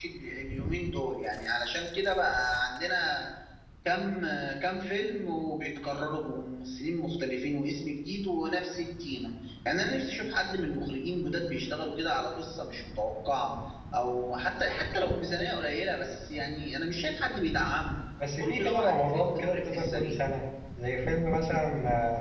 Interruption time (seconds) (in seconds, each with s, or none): 18.4 s